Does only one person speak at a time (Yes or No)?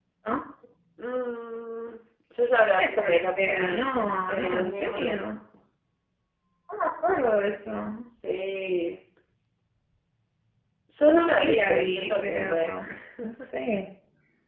No